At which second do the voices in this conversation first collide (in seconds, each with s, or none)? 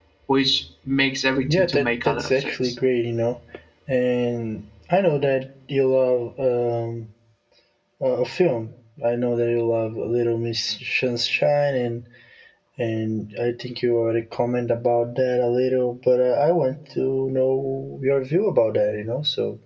1.5 s